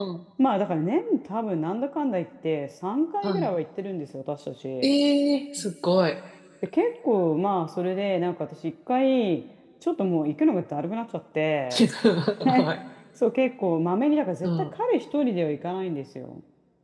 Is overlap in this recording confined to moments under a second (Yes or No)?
Yes